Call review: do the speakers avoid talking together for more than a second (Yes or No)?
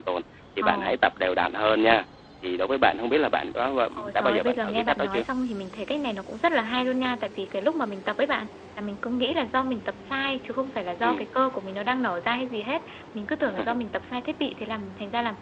No